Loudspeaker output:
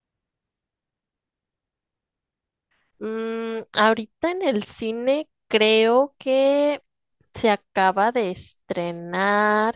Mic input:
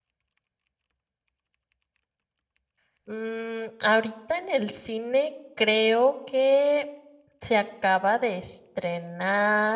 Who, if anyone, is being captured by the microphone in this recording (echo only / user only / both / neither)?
echo only